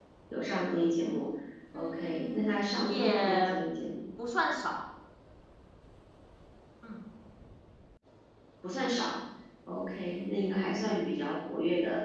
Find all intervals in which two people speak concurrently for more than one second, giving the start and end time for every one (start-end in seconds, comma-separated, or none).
1.7-3.6